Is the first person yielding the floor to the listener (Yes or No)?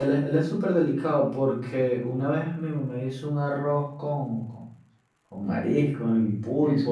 No